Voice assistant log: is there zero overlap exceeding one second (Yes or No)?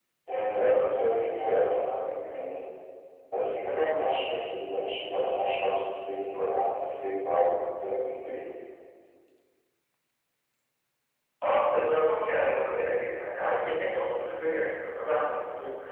Yes